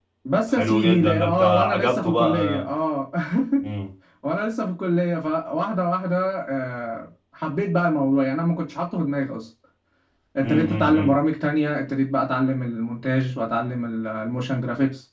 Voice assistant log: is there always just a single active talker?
No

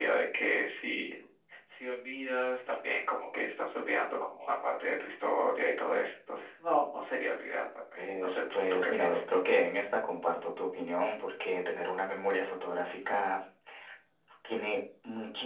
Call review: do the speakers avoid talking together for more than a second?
No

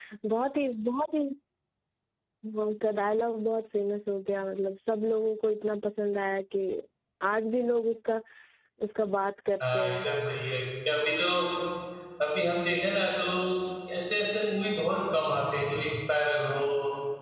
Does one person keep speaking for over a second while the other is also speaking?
No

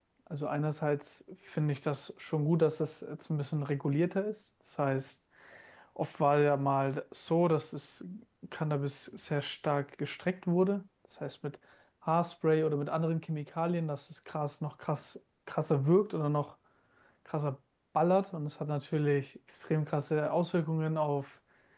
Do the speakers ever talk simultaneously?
No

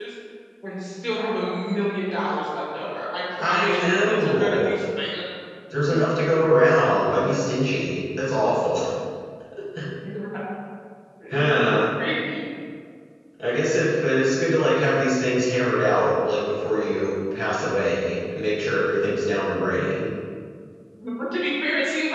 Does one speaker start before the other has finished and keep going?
Yes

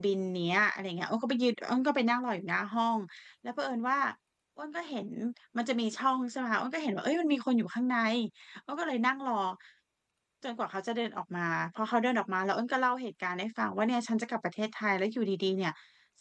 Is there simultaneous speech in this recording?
No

